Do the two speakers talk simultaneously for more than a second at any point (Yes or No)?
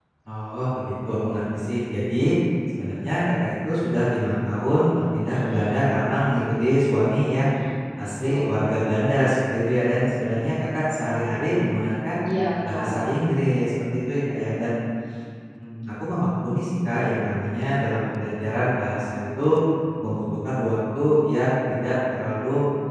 No